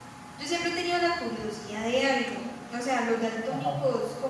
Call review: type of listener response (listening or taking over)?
listening